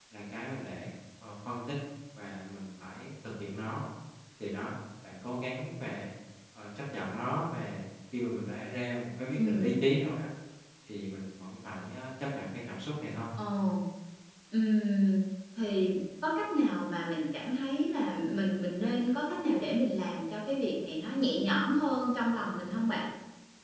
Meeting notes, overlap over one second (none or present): none